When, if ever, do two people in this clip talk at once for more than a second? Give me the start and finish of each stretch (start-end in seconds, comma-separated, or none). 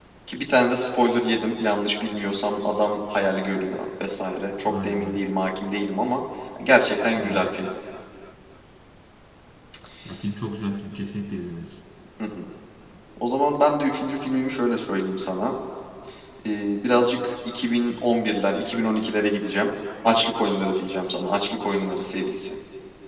none